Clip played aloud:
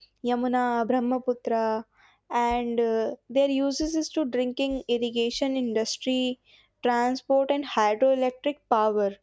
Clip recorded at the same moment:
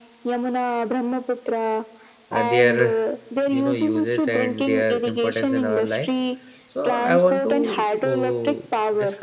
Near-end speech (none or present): present